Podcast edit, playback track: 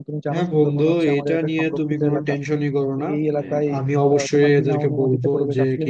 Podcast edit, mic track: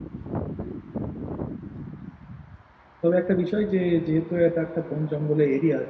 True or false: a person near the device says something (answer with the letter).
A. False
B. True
B